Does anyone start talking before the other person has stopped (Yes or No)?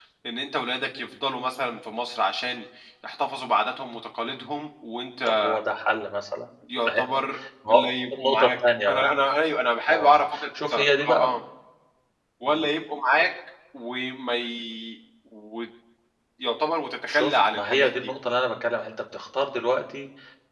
Yes